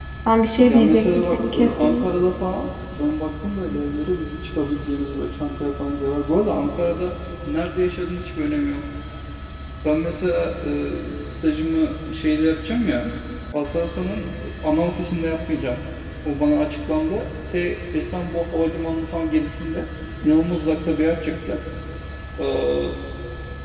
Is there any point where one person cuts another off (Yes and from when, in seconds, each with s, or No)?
Yes, from 0.6 s